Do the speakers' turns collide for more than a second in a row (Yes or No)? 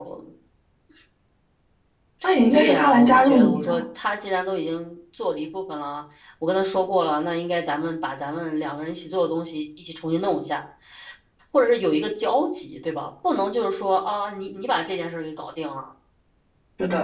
Yes